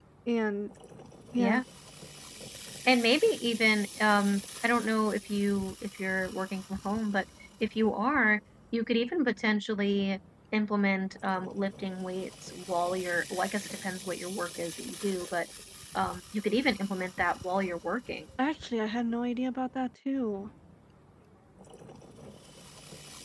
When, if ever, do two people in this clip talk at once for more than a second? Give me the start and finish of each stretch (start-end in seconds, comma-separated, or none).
none